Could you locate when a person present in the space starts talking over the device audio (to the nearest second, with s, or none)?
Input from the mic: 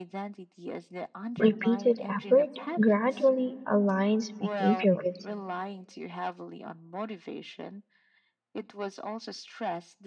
1 s